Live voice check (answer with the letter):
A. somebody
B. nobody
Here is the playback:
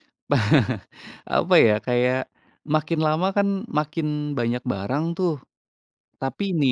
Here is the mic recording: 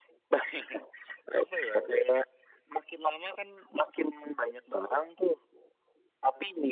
B